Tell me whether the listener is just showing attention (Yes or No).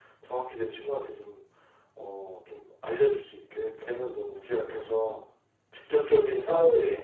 Yes